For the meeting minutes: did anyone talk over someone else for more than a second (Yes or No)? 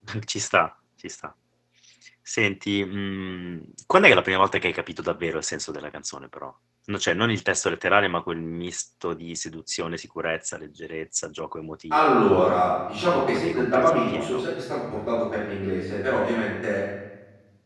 Yes